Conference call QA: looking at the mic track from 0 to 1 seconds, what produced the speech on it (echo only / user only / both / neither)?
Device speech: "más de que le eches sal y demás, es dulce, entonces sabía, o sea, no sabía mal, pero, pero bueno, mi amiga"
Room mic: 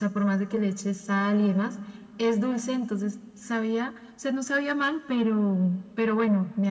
echo only